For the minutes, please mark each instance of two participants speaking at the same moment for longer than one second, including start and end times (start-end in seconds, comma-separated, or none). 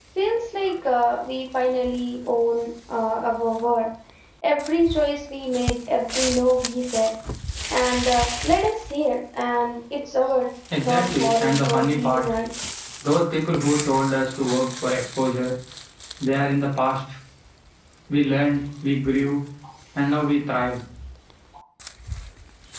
10.8-12.2